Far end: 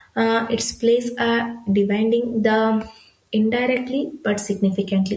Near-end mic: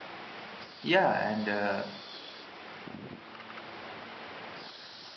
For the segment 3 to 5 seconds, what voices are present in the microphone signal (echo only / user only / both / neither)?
neither